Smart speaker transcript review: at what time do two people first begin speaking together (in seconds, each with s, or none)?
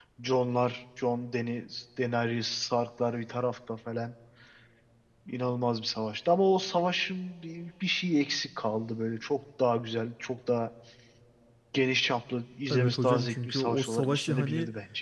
12.7 s